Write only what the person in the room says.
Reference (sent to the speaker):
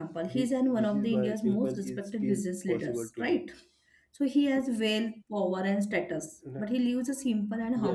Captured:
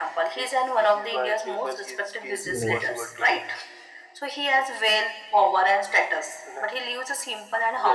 Right. Right.

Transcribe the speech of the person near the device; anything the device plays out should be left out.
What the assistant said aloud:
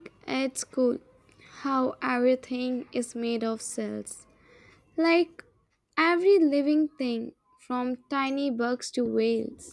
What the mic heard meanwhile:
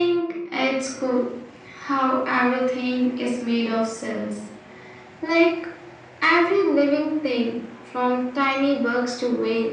none

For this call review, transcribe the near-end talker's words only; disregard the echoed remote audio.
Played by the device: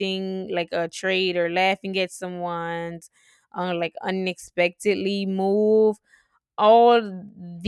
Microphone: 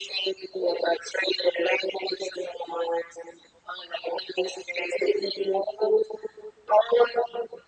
none

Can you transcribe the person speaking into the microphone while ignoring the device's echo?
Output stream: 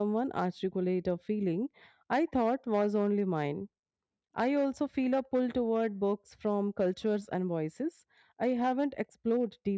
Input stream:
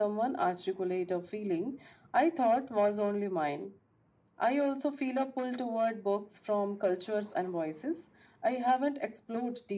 none

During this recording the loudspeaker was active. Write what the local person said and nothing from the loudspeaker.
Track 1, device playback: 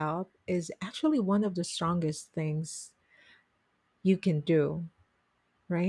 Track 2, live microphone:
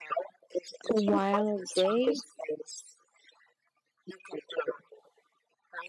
a wild day

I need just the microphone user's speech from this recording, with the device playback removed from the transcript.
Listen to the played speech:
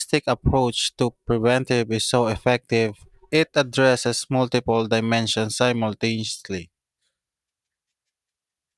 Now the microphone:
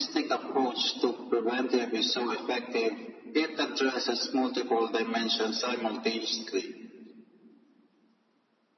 none

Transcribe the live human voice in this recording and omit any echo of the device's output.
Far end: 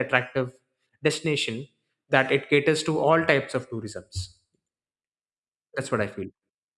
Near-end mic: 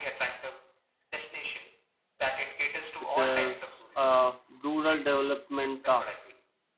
which is uh, rural development uh,

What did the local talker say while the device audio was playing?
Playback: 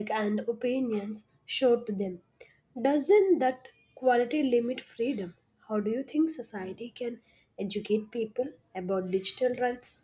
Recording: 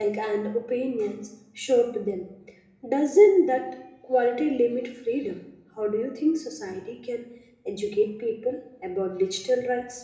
none

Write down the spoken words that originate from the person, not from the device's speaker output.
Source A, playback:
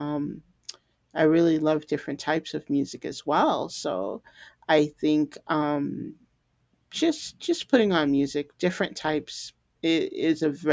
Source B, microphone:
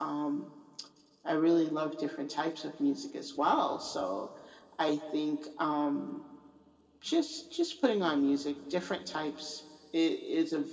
none

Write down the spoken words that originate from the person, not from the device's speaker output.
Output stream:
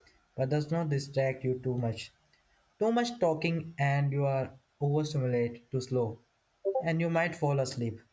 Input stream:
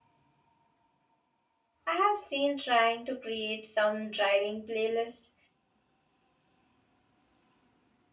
I have seen trying to create some driving playlist,

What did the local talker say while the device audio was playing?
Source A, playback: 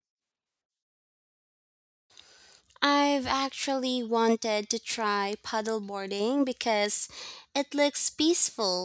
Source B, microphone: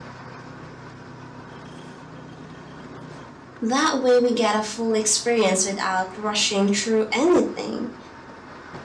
That way we get a full experience without rushing through anything.

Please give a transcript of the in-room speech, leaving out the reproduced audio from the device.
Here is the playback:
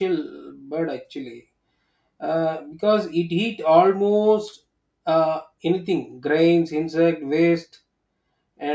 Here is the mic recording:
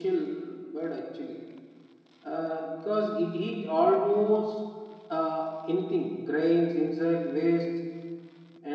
none

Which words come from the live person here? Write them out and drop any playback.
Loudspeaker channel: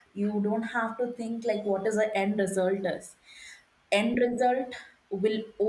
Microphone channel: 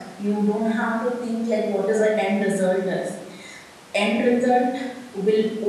none

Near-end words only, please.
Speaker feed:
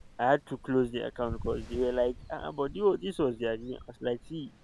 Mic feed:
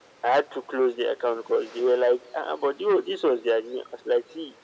none

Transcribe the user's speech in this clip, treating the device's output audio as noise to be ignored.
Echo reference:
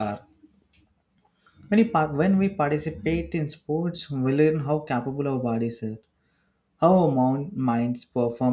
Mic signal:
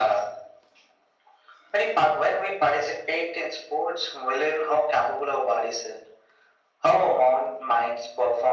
none

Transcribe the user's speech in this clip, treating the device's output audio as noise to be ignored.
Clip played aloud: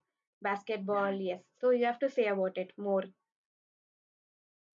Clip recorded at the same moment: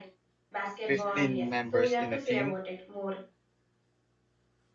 15 members in a team.

